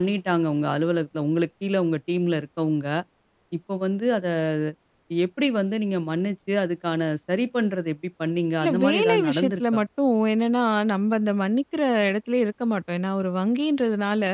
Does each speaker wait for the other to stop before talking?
No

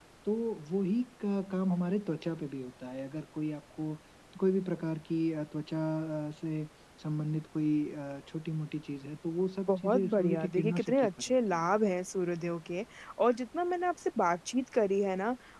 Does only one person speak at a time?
No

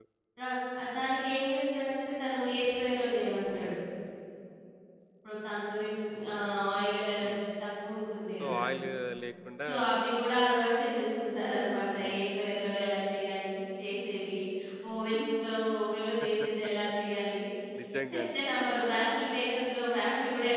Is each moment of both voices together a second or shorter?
Yes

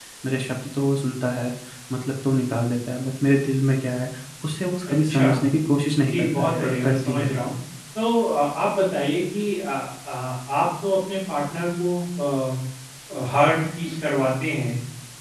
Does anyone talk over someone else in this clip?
Yes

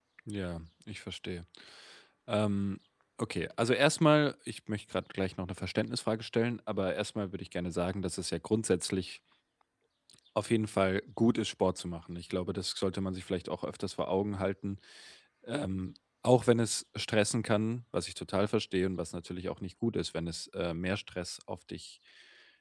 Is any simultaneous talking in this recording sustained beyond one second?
No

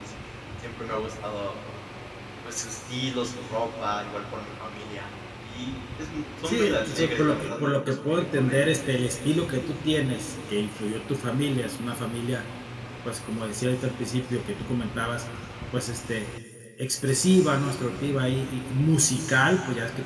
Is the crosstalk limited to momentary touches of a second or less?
No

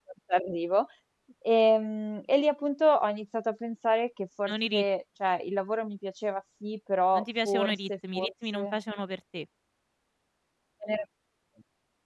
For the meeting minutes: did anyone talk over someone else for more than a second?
Yes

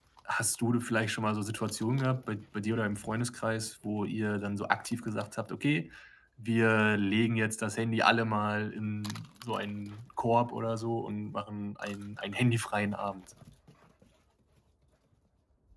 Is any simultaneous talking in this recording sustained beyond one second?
No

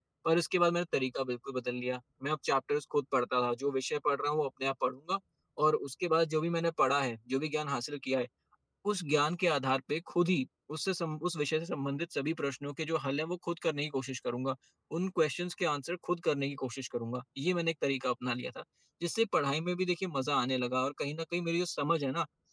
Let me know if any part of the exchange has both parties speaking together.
No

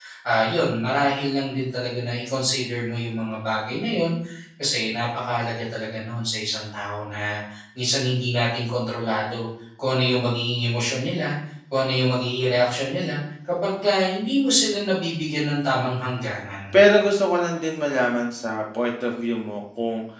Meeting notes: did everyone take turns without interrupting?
Yes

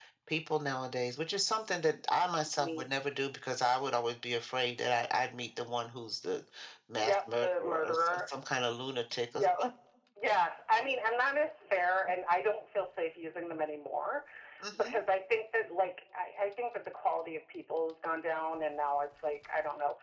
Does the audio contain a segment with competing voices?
Yes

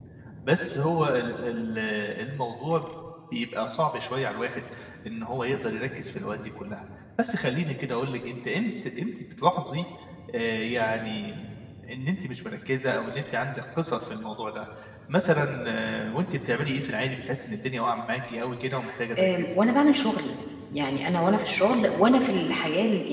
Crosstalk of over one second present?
No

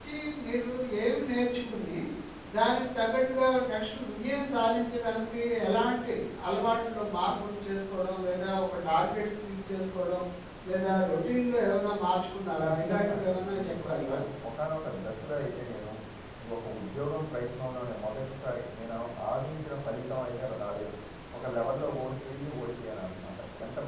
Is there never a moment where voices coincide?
No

